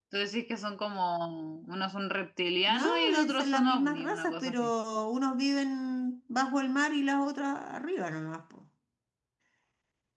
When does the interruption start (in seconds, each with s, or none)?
2.7 s